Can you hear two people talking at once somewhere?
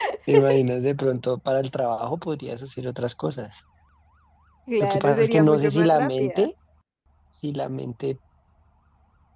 Yes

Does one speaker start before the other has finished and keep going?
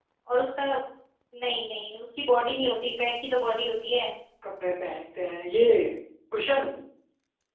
No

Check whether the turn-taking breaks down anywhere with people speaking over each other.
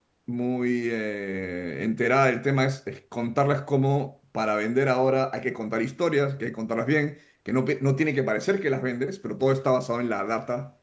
No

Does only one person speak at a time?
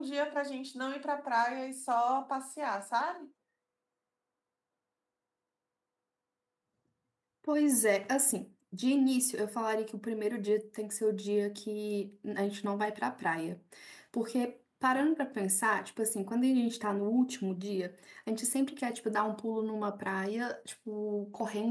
Yes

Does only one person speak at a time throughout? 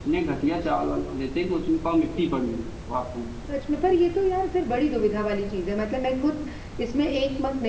Yes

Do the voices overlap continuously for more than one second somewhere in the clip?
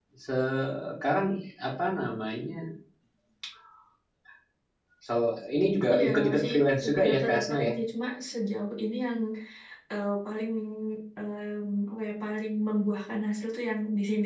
Yes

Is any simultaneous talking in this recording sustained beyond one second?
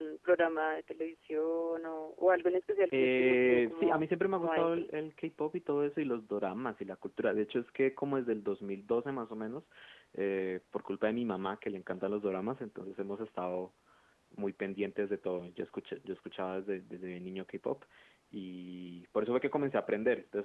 Yes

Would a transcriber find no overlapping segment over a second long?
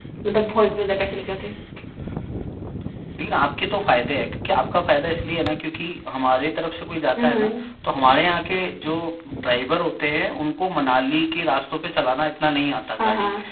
Yes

